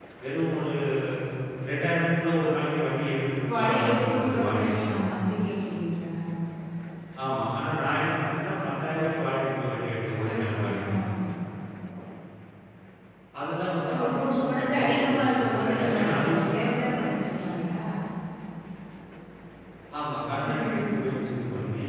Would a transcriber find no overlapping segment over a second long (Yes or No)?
No